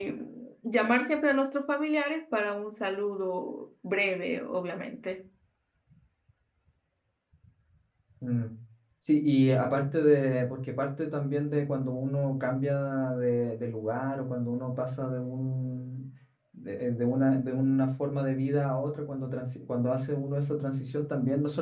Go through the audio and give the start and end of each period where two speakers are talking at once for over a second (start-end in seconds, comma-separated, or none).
none